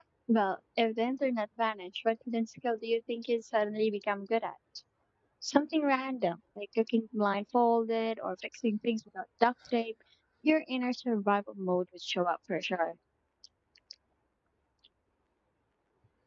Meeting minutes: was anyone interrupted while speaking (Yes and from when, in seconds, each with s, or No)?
No